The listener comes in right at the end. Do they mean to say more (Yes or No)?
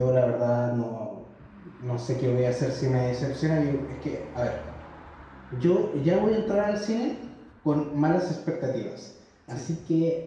No